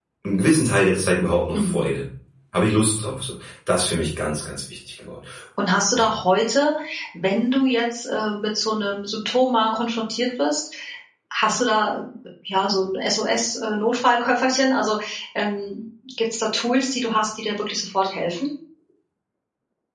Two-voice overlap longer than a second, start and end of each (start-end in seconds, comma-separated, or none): none